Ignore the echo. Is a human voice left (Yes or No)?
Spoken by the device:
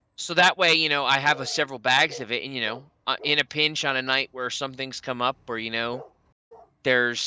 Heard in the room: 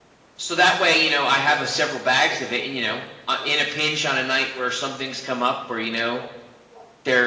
No